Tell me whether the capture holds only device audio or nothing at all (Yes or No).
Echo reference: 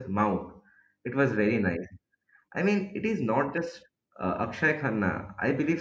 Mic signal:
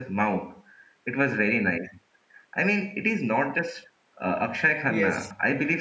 No